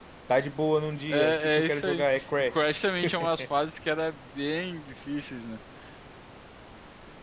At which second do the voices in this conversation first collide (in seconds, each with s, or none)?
1.1 s